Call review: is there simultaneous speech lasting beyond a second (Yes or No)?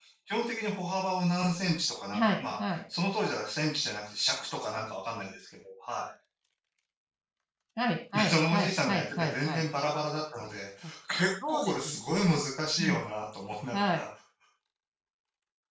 Yes